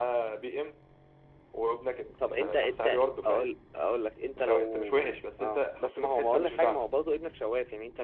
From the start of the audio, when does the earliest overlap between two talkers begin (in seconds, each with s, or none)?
2.3 s